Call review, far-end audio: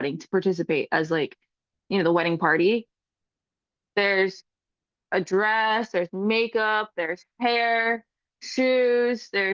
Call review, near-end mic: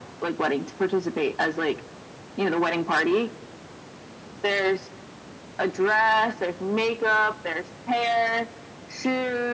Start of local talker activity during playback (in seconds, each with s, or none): none